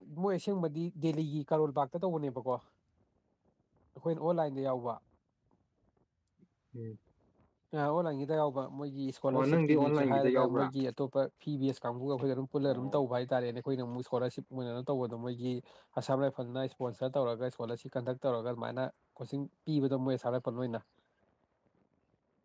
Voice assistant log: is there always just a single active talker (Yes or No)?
No